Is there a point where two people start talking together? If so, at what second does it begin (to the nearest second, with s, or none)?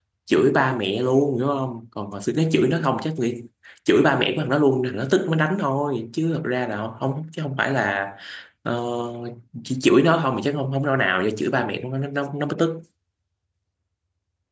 none